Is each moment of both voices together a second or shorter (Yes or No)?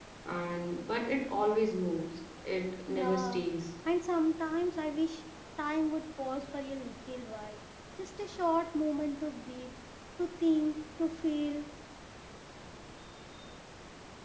Yes